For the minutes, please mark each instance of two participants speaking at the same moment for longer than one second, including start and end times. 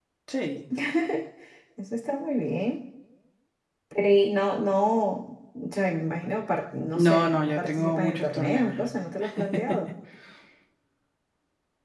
6.9-8.9

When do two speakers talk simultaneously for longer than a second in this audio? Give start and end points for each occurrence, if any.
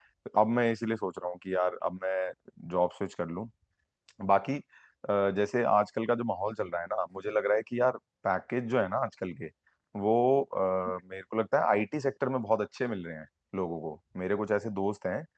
none

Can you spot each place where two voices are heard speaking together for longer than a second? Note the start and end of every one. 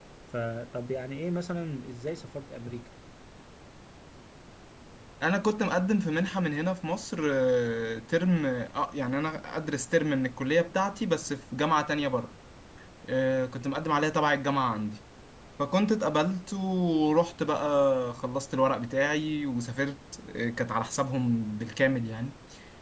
none

